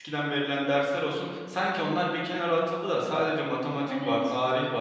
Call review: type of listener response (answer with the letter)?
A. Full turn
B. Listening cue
B